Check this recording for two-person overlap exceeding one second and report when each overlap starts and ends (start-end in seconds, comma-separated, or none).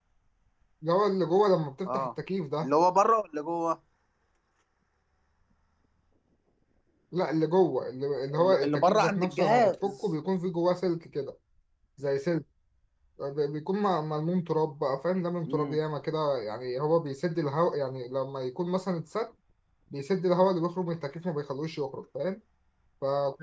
8.4-9.9